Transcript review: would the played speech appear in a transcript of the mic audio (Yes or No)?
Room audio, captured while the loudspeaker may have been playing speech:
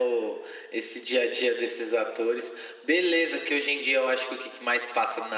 Yes